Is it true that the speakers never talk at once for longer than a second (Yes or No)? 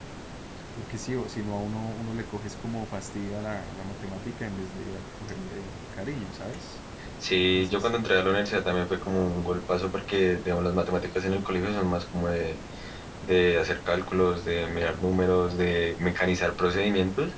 Yes